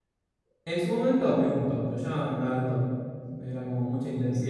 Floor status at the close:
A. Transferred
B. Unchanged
A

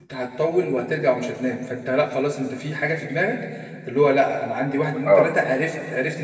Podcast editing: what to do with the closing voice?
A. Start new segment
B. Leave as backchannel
B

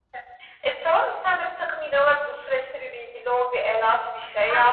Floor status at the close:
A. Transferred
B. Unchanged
A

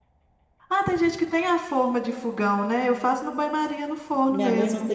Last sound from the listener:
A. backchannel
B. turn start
B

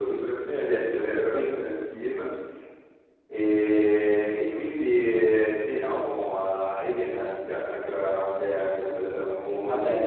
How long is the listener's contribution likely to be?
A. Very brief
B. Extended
B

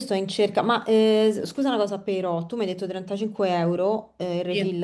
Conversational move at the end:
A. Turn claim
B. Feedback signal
B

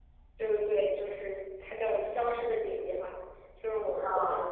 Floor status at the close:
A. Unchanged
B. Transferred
A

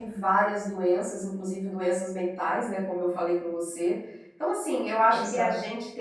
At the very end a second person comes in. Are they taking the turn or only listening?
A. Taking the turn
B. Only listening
B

